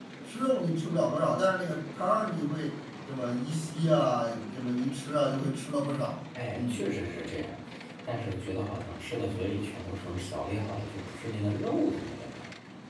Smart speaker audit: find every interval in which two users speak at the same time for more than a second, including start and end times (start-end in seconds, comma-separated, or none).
none